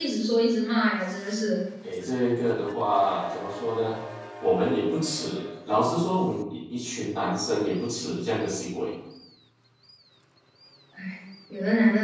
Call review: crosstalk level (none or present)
none